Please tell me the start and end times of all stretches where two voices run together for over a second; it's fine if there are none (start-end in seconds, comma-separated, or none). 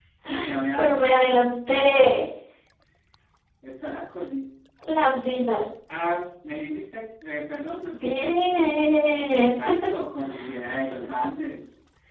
0.8-2.2